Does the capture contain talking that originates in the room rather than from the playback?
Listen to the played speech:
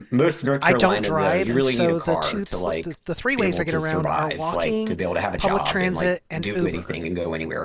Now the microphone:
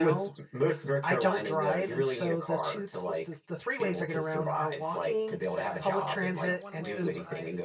Yes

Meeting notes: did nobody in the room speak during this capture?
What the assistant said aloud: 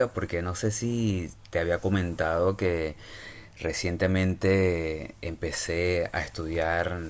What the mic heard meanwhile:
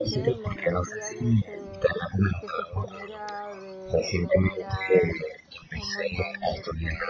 No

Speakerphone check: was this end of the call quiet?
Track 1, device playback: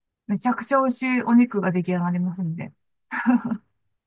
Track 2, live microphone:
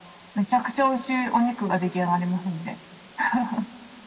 Yes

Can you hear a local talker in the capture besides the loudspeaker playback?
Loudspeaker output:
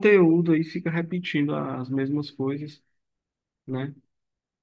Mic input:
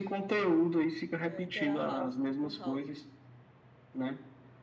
Yes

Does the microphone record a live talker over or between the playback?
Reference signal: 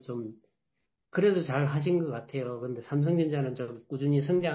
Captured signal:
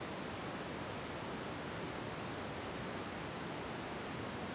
No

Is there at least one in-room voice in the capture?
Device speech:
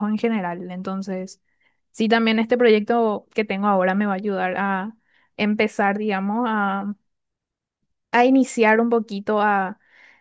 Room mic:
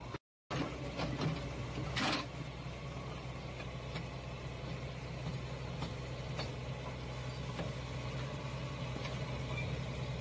No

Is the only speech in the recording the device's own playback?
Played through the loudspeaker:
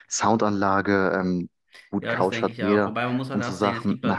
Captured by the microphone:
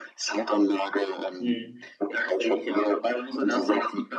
No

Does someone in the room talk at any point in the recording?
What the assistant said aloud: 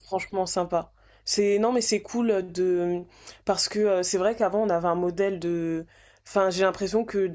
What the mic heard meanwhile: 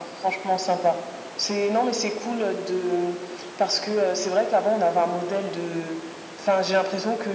No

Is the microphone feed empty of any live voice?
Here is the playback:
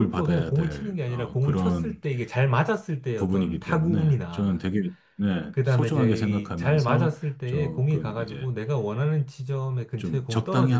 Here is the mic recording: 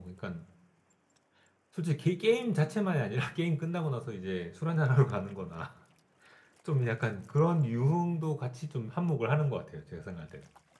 No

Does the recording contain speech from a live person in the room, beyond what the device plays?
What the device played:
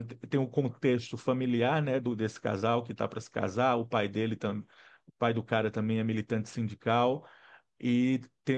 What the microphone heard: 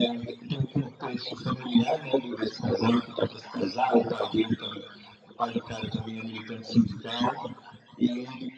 No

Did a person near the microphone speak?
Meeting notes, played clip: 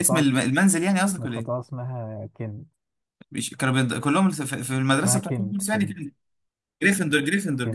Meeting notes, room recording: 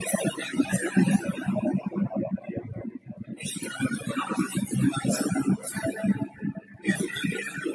No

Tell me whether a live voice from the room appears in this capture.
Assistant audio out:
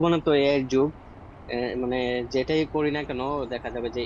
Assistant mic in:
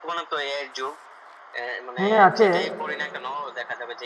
Yes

